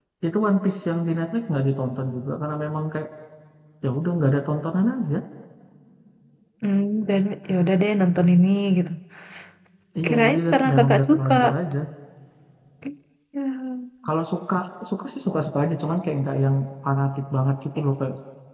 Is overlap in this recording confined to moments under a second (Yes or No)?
No